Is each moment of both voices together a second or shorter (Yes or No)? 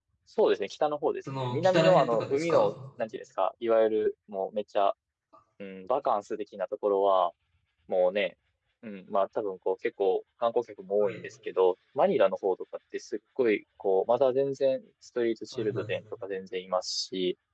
No